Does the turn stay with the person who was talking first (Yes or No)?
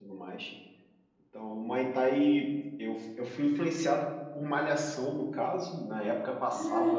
Yes